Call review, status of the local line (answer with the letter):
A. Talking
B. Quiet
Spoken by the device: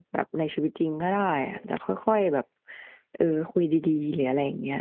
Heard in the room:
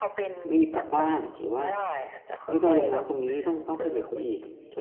A